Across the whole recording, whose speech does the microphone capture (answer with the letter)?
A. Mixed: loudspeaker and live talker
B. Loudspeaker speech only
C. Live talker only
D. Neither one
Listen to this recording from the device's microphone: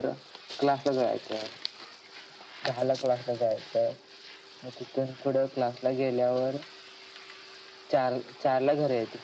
B